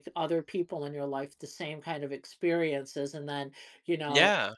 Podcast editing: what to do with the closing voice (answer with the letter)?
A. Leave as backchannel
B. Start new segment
A